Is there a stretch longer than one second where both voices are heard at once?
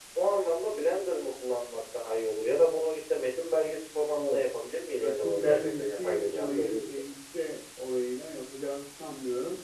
Yes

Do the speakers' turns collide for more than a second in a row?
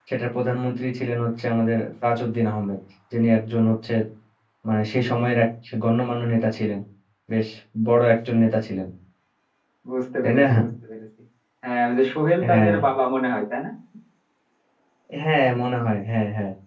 No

